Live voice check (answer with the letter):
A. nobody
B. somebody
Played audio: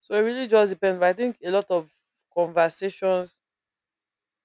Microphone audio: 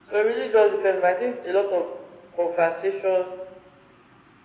A